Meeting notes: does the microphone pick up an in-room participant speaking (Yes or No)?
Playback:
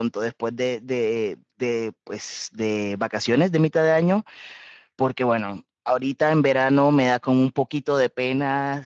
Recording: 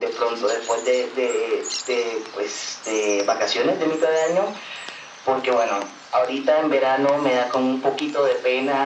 No